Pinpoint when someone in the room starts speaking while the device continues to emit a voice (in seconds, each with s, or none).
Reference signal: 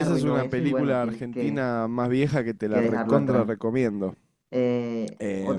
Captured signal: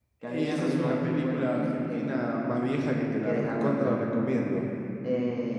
none